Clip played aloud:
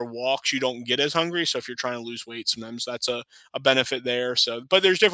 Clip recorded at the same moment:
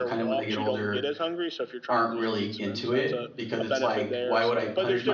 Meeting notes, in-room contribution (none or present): present